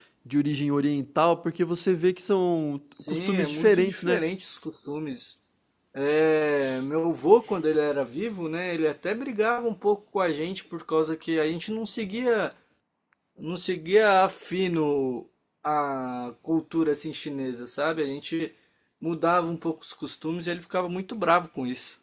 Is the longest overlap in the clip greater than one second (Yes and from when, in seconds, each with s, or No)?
Yes, from 2.9 s